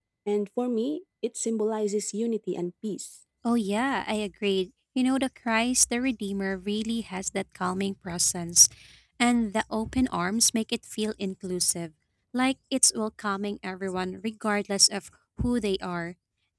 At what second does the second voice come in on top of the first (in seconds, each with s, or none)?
none